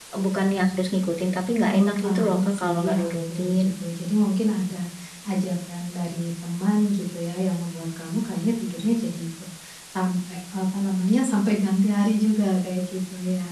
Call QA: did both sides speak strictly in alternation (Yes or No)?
No